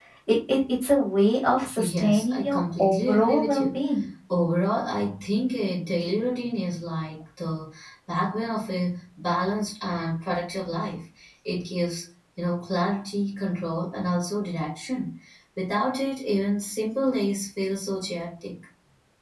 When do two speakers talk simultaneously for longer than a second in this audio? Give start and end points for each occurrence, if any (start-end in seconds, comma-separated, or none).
1.9-3.8